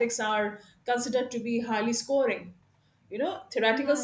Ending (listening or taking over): listening